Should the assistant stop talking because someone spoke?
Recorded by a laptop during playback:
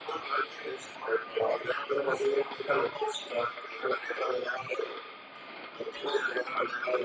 No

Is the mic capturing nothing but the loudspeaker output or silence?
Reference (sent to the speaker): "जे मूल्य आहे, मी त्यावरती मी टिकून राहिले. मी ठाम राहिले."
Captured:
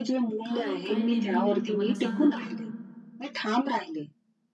No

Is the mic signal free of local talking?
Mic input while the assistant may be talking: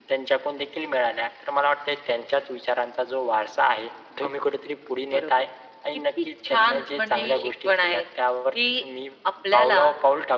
Yes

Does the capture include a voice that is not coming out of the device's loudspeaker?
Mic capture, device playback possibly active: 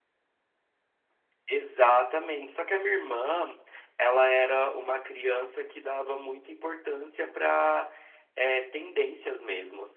No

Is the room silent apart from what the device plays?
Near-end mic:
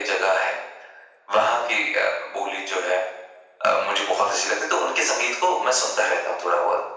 Yes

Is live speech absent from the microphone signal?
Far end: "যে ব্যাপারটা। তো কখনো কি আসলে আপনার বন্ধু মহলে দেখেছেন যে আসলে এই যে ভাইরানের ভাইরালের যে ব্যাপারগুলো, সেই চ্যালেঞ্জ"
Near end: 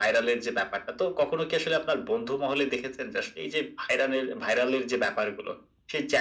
Yes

